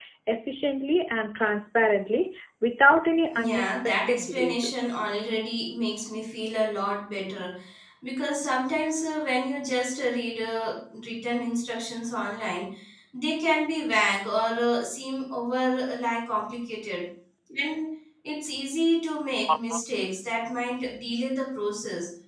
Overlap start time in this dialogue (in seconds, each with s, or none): 3.3 s